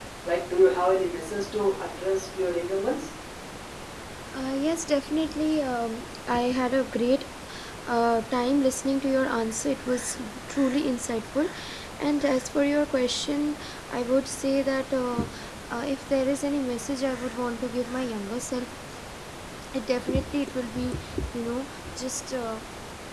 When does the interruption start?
none

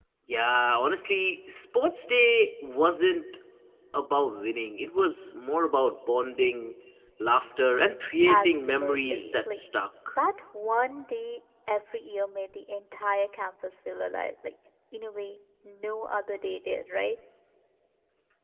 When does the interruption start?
8.2 s

